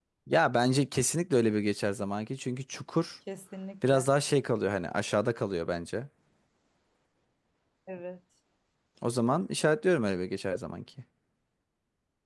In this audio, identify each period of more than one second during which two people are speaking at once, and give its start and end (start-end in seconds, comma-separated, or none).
none